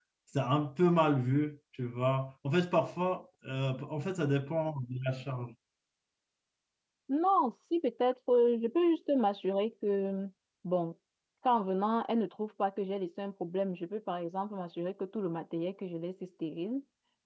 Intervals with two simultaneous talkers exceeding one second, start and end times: none

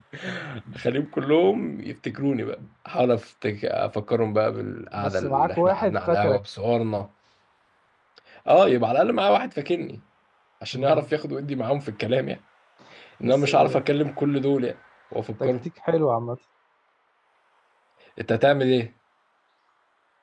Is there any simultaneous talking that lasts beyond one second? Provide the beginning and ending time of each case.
5.0-6.4

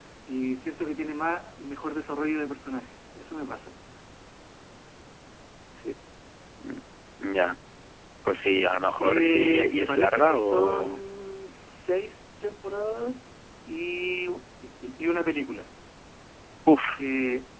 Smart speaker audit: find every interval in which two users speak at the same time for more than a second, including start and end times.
9.0-11.0

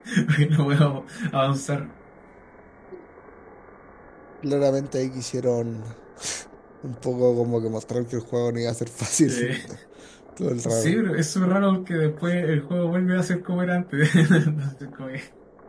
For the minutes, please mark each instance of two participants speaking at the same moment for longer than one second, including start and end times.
none

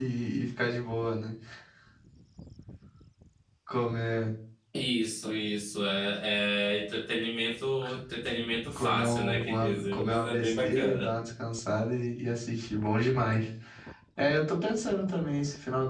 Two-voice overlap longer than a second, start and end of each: 8.8-11.1

